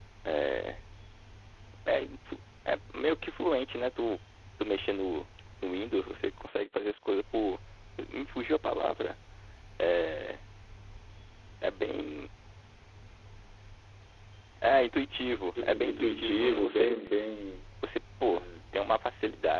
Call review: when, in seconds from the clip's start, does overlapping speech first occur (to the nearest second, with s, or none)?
16 s